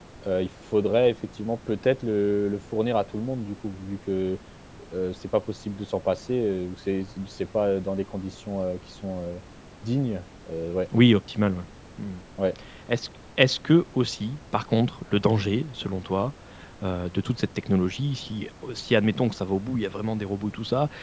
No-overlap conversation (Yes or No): Yes